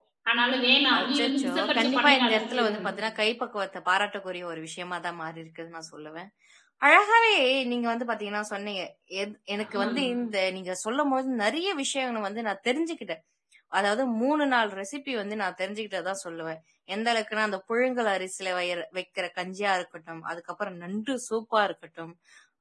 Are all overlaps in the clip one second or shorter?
No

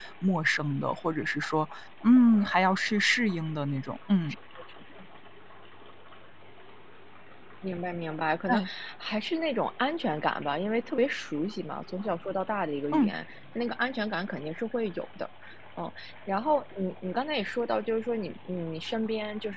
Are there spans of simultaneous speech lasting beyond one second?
No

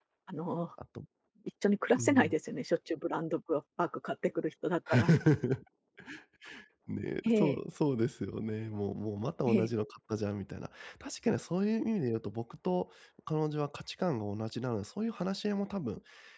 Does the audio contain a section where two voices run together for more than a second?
No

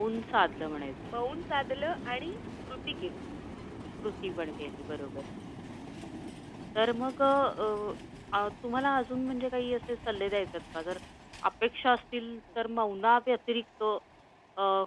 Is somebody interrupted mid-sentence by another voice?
No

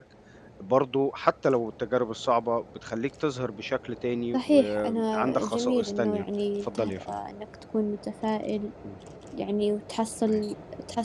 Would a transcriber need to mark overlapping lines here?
Yes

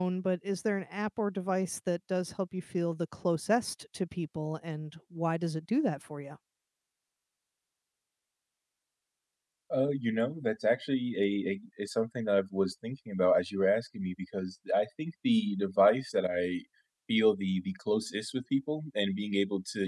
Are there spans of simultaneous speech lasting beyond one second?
No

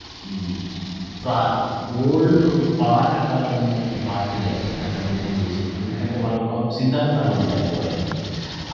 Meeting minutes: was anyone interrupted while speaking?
No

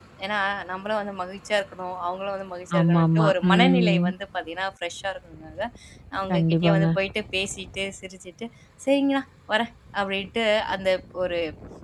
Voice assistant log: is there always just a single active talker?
No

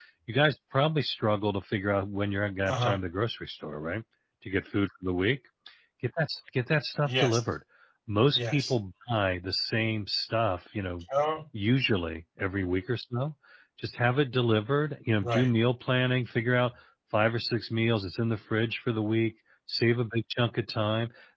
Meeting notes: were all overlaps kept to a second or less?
Yes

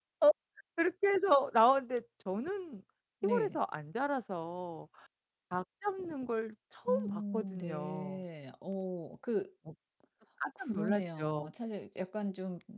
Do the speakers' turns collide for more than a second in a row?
Yes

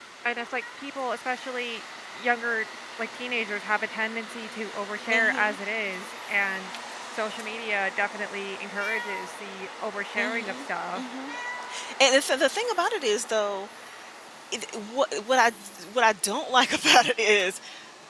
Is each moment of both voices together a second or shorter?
Yes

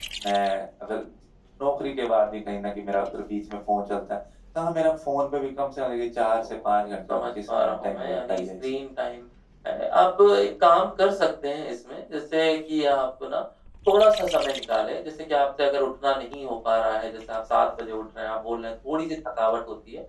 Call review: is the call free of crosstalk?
No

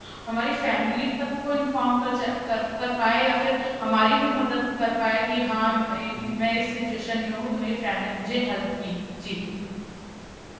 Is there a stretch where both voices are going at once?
No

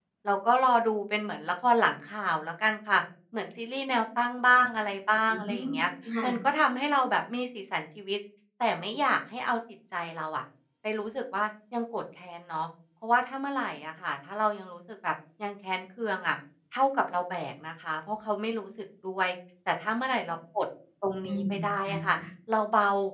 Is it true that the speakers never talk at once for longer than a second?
Yes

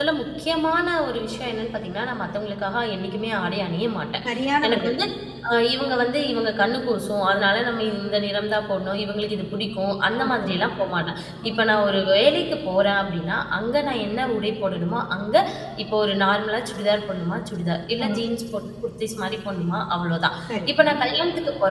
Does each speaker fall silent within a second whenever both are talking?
Yes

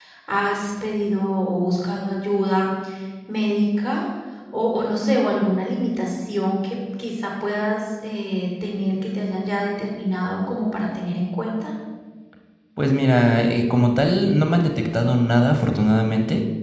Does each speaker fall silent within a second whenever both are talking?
Yes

